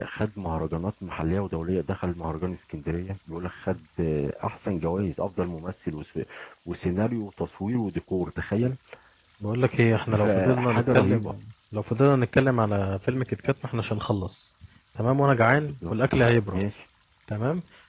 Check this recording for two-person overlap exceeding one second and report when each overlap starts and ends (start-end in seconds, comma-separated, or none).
10.1-11.3